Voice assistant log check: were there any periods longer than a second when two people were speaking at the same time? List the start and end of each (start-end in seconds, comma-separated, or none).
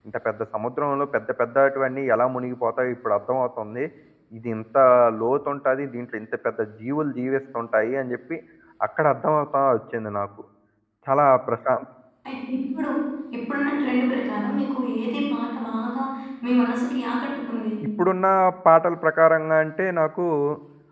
none